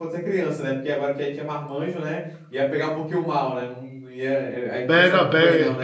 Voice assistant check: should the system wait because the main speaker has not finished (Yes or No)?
No